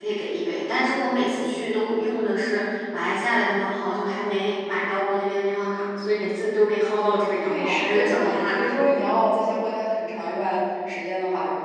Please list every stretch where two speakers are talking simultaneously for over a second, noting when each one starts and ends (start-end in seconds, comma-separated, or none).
7.4-8.7